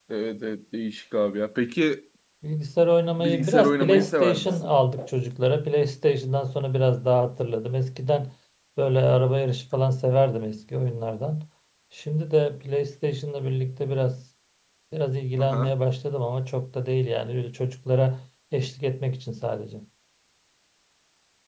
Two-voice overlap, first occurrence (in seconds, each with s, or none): 3.2 s